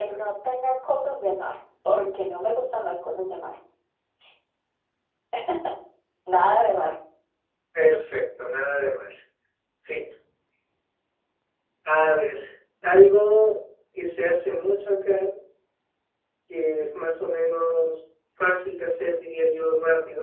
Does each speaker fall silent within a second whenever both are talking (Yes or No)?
Yes